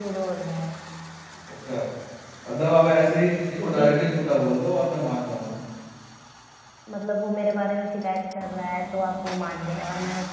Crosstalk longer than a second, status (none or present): none